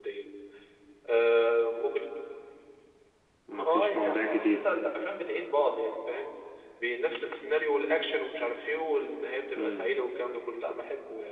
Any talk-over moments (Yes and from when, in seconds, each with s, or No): Yes, from 3.6 s